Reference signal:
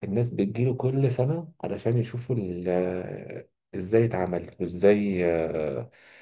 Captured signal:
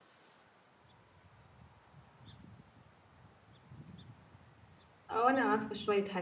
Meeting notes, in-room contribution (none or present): present